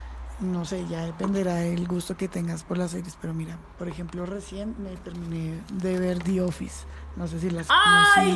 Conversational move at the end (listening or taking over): taking over